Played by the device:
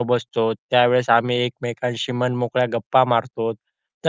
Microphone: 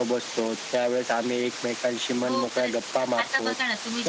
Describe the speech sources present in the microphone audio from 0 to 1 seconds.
echo only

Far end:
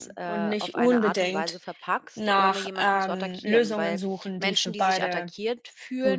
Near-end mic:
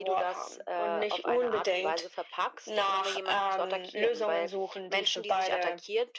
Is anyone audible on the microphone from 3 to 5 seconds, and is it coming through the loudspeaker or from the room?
echo only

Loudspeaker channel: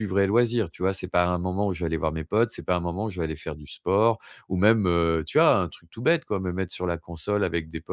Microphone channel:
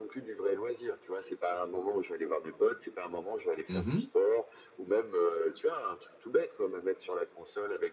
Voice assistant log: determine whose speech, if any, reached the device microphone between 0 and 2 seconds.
echo only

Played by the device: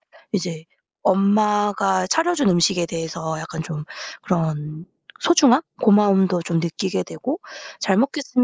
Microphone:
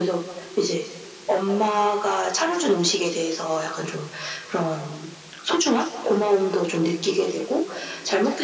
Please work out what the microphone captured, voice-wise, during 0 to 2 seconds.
echo only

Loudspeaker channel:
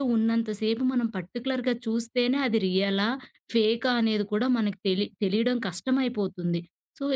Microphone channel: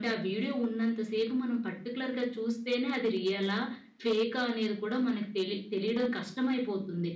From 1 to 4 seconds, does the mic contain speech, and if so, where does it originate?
echo only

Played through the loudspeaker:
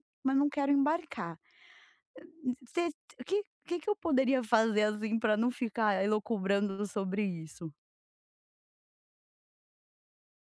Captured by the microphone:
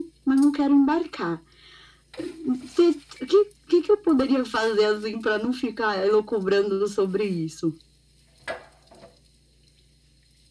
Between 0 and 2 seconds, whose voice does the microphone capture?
echo only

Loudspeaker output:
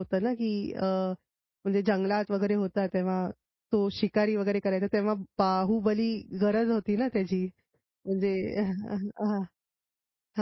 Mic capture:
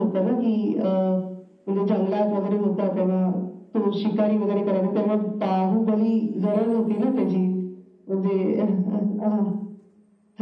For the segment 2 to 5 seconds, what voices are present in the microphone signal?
echo only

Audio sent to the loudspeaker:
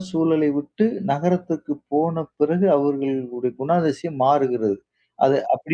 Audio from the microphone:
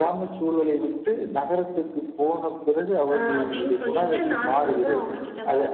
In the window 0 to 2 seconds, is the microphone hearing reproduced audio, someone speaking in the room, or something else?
echo only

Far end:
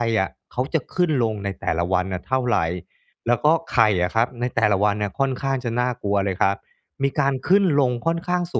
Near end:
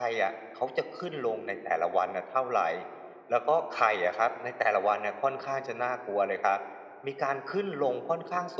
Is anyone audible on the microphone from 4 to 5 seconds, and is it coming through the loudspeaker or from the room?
echo only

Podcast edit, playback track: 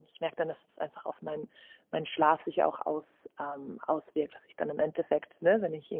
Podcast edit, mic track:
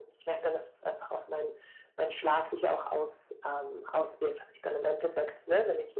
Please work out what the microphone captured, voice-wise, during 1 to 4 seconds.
echo only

